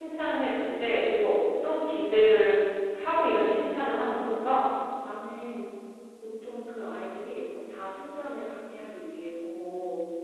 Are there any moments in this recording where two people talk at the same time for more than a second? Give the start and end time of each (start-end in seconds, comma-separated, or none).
none